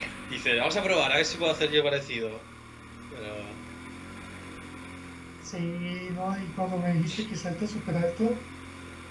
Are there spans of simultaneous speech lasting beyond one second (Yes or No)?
No